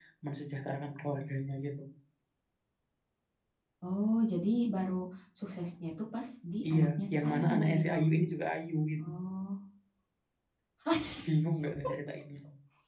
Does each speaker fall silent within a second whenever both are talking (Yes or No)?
No